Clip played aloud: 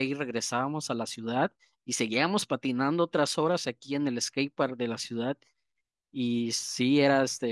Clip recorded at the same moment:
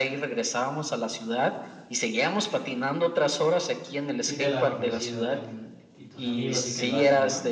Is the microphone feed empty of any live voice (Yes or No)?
No